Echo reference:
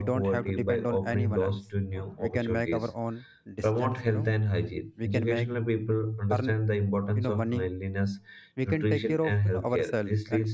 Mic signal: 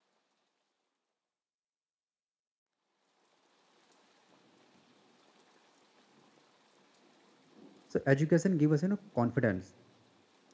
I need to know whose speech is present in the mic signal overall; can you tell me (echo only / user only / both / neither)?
user only